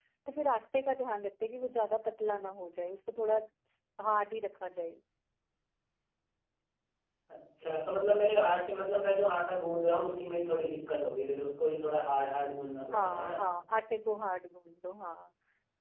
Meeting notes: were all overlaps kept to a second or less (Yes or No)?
Yes